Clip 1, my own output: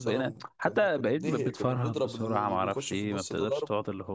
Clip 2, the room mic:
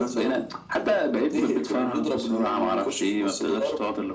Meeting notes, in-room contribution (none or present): none